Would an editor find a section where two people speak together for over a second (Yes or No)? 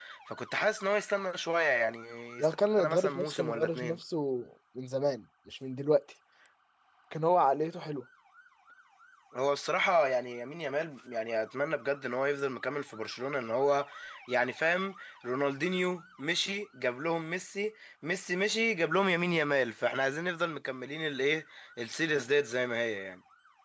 Yes